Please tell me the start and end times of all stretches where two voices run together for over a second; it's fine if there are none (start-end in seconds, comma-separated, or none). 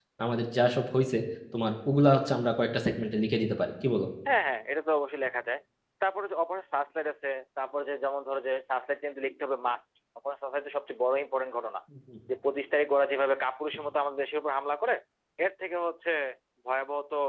none